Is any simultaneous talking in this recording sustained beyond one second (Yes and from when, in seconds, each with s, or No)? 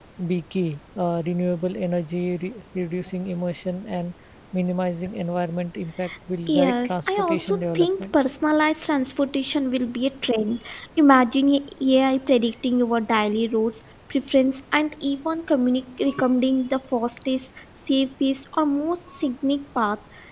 Yes, from 6.5 s